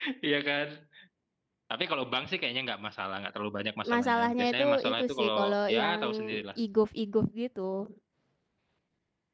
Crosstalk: present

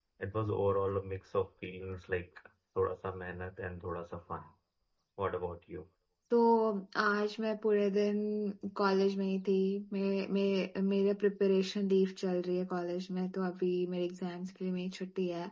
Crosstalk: none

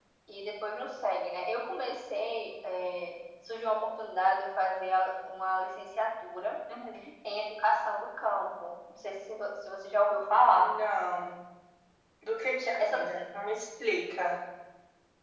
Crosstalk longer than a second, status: none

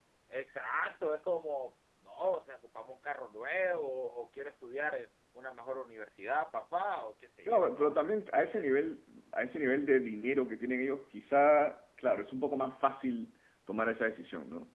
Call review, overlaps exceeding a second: none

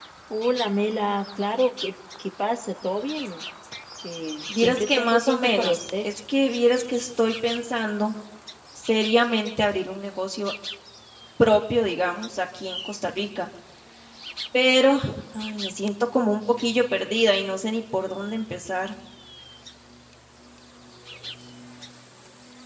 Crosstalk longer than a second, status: present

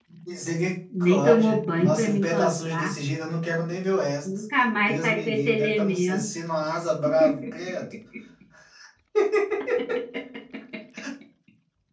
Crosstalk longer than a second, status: present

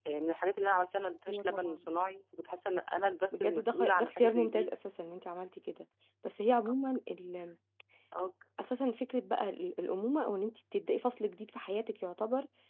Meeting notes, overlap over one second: present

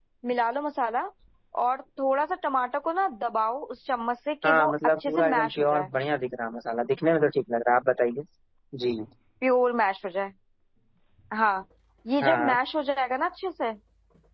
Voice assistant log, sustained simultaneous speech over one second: present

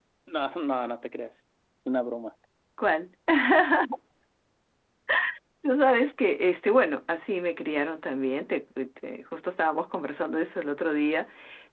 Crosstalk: none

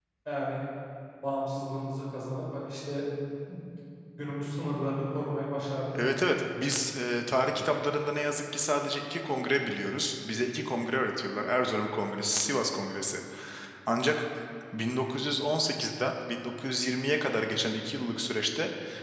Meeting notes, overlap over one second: none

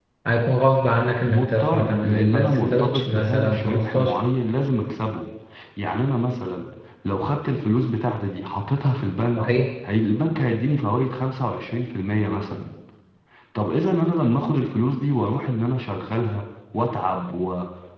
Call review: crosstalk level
present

